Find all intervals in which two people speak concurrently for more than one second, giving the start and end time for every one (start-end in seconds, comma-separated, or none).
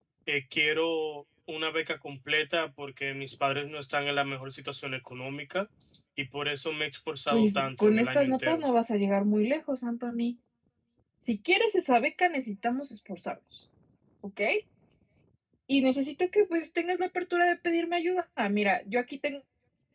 7.3-8.6